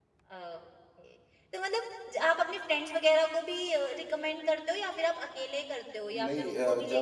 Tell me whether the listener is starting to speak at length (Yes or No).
Yes